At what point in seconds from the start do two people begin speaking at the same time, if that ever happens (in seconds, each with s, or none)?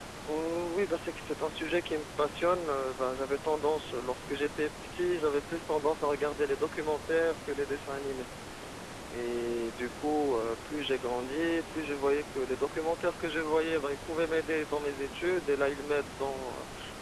none